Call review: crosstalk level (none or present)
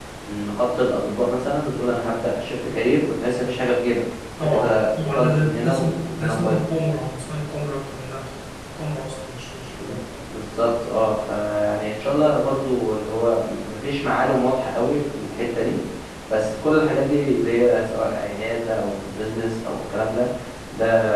present